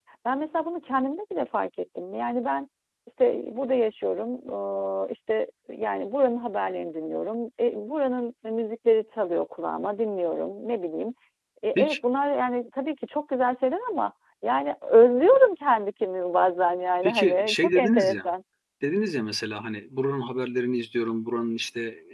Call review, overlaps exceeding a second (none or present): present